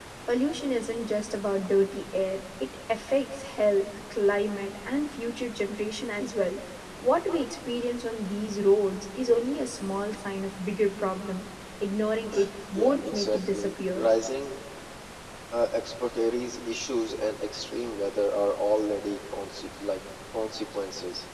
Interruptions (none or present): present